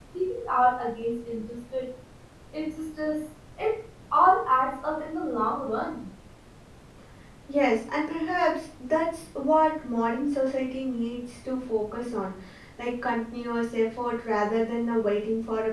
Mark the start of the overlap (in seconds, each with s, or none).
none